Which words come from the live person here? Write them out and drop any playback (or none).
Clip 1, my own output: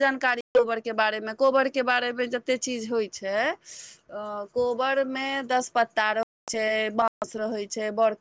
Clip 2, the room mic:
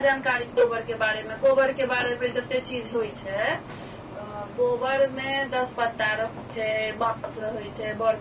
none